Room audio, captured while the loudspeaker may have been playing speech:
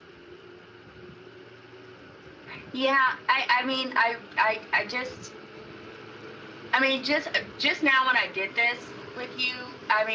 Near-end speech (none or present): none